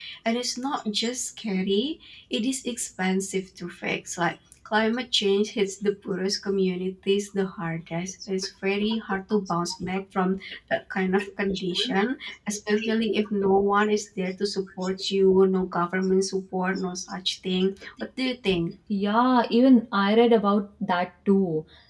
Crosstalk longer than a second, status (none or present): none